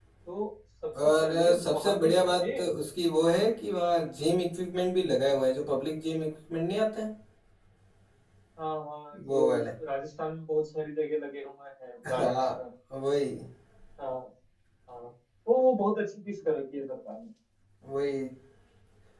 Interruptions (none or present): present